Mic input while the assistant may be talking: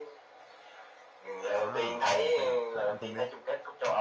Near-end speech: present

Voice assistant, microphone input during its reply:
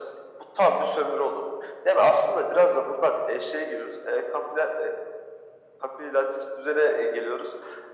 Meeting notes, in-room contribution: none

